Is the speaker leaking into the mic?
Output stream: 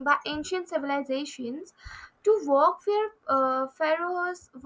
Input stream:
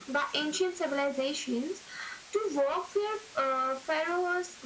Yes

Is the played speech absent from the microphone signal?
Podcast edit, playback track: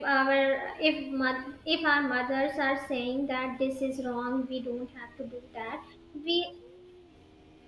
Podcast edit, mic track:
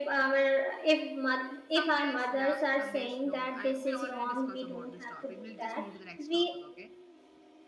No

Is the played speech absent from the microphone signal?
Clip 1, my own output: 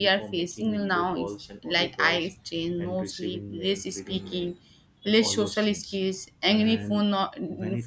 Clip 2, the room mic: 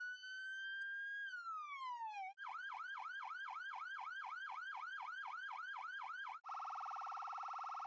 Yes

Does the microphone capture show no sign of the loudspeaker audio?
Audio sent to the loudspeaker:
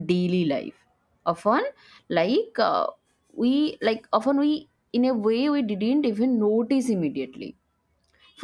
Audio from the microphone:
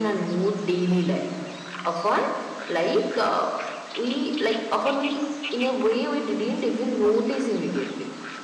No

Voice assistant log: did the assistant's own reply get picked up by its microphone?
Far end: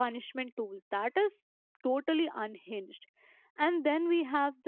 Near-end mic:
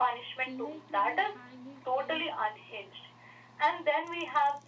Yes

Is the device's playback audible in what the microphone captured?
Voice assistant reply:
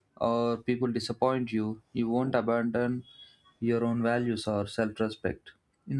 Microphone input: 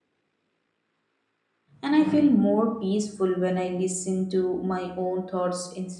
No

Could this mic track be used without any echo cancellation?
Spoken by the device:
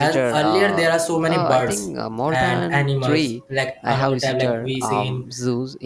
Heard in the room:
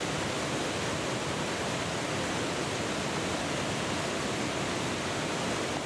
Yes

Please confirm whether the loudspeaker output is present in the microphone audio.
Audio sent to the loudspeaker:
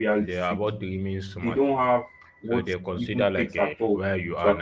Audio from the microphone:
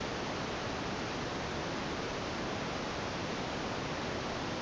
No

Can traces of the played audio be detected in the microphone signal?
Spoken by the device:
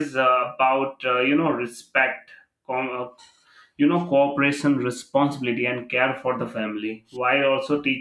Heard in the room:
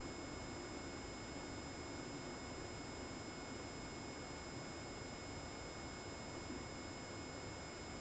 No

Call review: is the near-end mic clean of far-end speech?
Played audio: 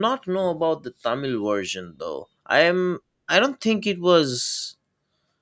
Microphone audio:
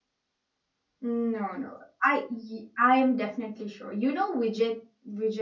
Yes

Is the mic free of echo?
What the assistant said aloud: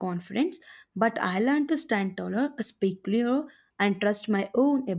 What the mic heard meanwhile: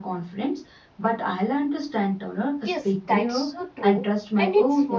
No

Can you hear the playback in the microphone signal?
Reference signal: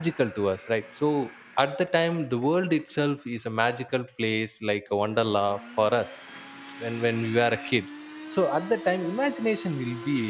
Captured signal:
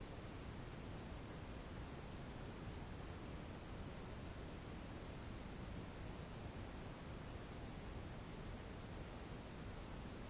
No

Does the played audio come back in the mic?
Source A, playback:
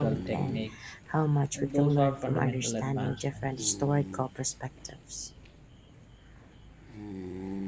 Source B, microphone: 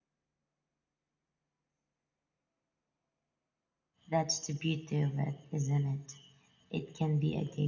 No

